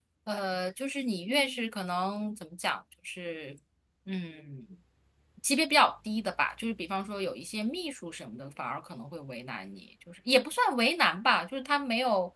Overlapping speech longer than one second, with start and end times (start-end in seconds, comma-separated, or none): none